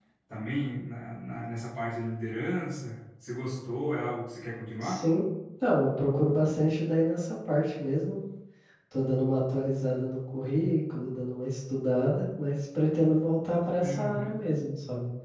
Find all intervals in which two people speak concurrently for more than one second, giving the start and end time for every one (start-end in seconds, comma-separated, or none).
none